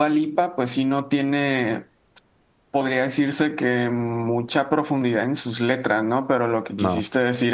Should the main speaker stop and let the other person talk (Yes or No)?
No